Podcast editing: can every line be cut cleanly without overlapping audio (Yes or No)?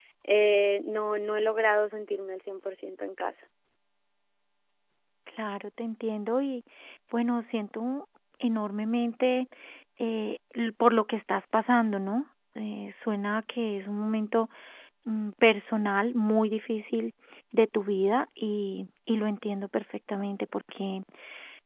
Yes